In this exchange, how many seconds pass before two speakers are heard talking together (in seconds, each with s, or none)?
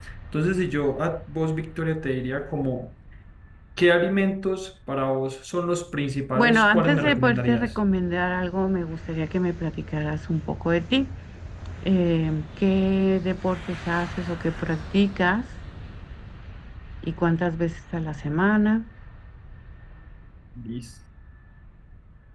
6.3 s